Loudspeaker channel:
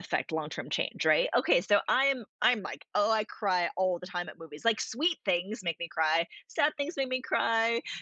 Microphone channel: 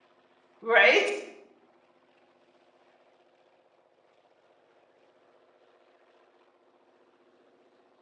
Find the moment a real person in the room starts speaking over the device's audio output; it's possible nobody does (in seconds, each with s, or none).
0.6 s